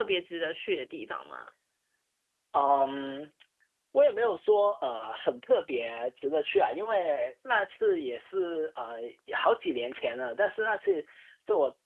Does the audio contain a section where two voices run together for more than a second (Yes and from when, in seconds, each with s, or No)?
No